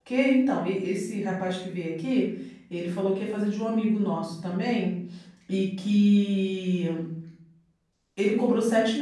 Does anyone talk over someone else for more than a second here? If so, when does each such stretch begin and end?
none

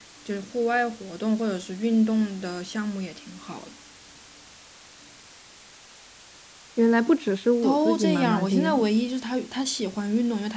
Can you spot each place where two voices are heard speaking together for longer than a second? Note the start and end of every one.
7.6-8.9

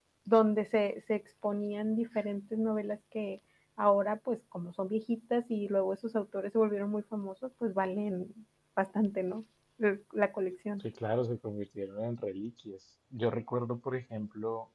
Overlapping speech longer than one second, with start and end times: none

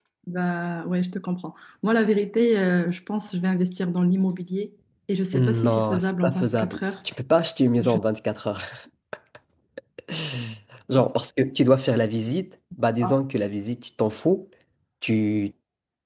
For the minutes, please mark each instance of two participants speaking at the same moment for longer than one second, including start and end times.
5.3-6.9

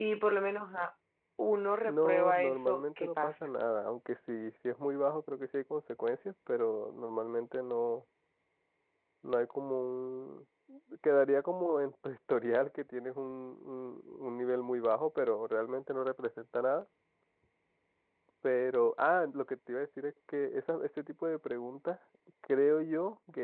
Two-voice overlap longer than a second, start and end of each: 1.8-3.3

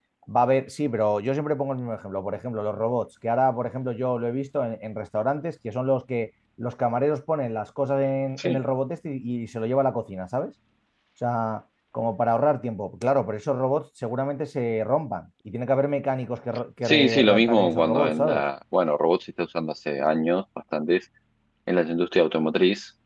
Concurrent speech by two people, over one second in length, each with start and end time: 16.8-18.4

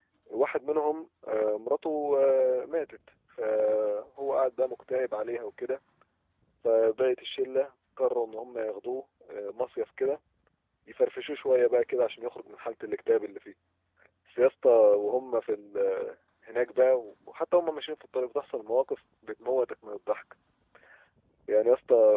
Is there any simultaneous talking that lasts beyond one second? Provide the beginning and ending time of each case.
none

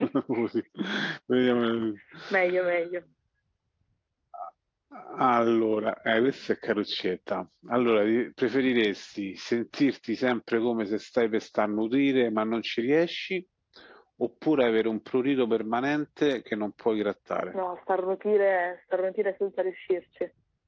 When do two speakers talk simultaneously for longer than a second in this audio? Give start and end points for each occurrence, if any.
none

